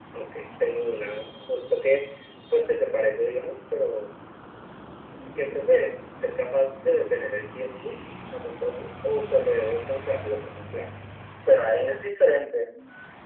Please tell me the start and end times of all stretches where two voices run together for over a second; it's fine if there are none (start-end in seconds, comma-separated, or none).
none